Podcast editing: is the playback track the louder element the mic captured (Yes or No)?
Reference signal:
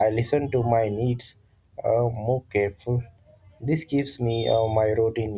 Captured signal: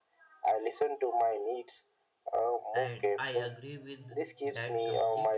Yes